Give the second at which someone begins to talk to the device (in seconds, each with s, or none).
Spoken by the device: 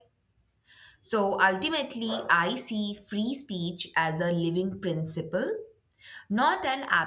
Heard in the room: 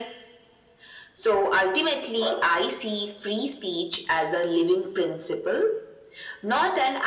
none